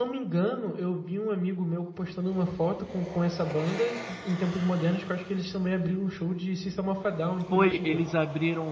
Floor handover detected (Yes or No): Yes